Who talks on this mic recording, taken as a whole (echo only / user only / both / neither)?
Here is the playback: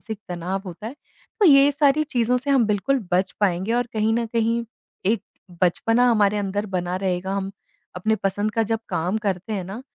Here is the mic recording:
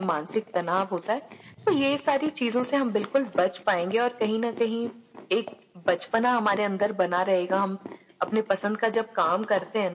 echo only